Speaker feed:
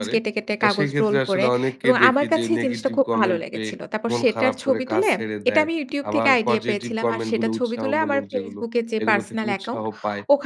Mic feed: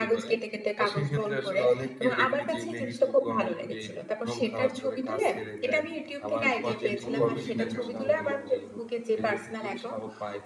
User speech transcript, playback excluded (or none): অনুভূতিটা কেমন ছিল ওই সময়টাতে?